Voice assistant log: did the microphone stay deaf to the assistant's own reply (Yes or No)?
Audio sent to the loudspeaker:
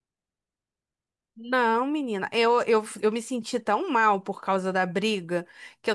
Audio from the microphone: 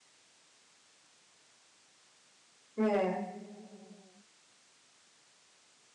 Yes